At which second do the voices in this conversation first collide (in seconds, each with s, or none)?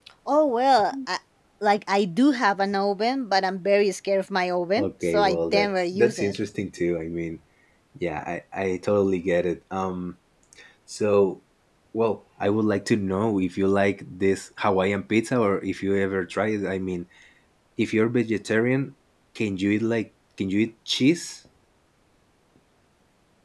4.8 s